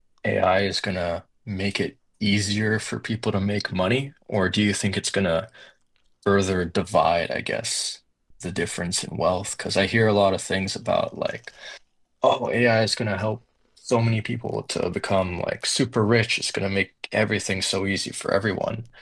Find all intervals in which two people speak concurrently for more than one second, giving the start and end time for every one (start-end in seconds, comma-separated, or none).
none